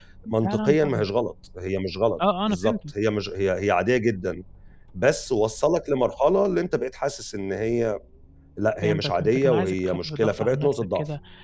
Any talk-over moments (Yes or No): Yes